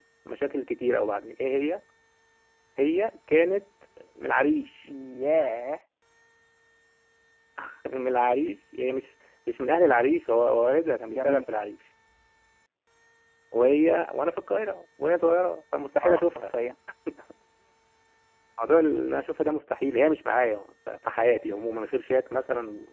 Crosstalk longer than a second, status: none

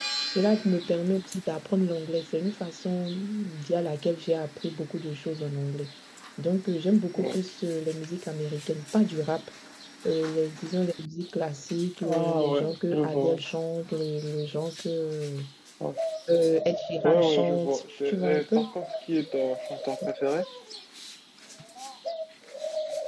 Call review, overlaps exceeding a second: present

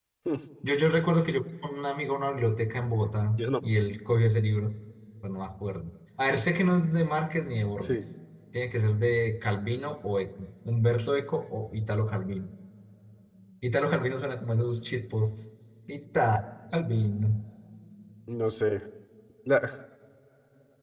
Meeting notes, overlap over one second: none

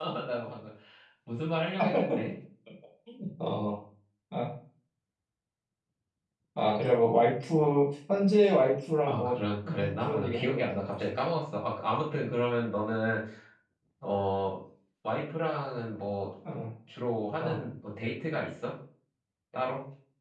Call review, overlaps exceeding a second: present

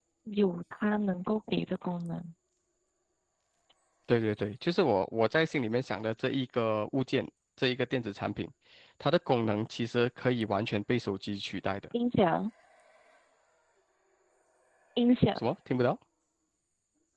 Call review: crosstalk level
none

